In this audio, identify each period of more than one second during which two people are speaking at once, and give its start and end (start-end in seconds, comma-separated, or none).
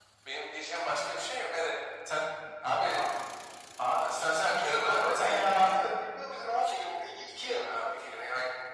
4.0-5.8, 6.3-7.6